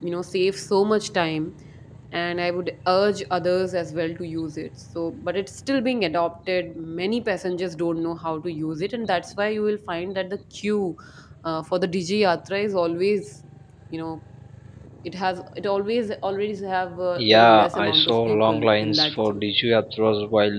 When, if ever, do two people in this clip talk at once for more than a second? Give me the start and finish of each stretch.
17.2-19.4

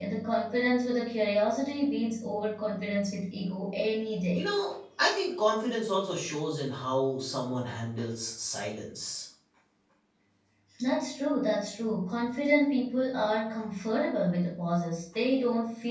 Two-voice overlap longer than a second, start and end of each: none

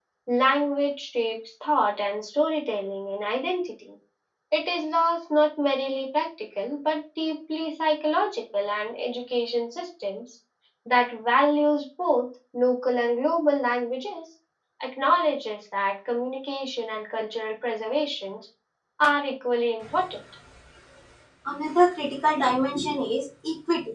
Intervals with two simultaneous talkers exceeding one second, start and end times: none

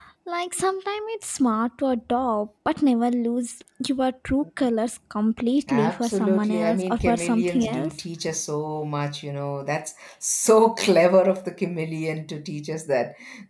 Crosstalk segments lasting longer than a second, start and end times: 5.7-7.9

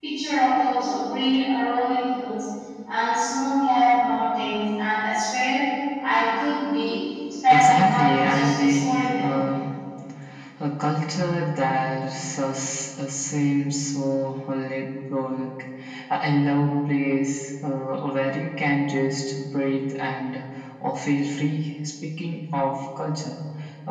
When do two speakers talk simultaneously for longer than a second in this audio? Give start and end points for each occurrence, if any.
7.5-9.3

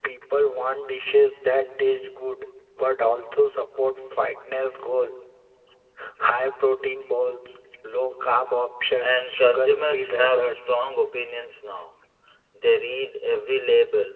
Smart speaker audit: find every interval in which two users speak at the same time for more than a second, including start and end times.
9.0-10.8

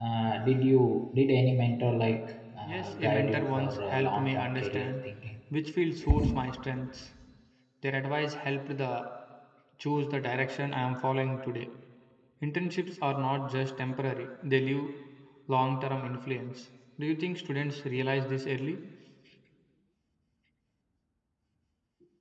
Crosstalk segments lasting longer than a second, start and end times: 2.6-5.0

